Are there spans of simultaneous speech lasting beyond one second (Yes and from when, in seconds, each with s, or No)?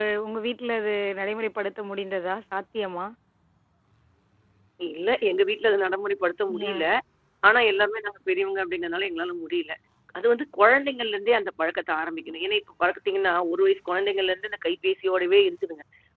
No